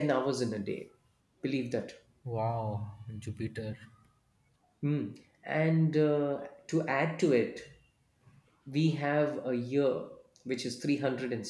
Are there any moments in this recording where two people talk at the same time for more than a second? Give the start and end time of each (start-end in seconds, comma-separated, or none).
none